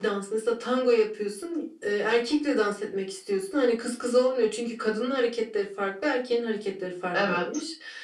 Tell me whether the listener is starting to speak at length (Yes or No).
No